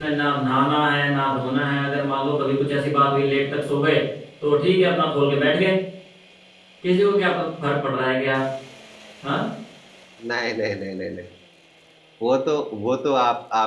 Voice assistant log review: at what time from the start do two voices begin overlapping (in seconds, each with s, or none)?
none